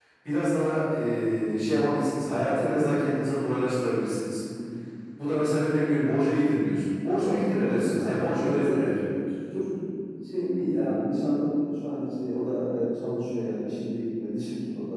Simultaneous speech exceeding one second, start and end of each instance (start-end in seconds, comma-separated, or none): 7.2-9.2